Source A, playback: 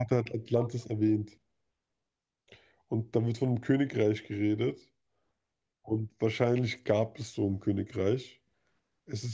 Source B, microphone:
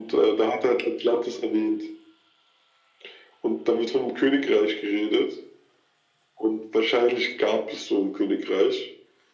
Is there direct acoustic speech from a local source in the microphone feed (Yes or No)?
No